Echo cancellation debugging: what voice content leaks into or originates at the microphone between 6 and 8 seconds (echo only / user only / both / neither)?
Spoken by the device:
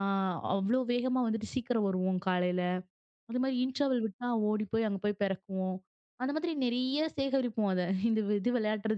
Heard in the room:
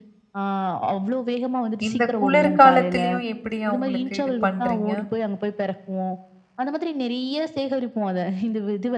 echo only